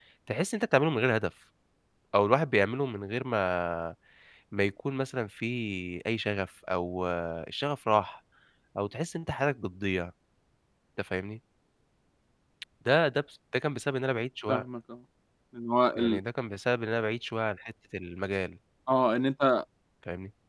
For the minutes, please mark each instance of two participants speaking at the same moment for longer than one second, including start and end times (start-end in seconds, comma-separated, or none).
none